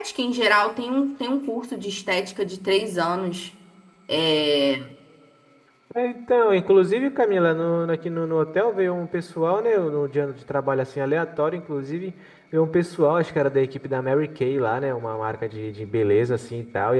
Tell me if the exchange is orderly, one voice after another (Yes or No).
Yes